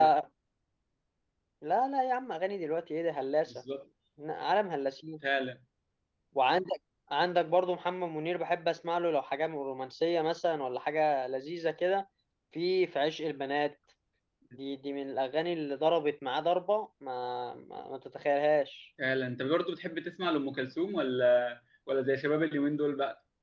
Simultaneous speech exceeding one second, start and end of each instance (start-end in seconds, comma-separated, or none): none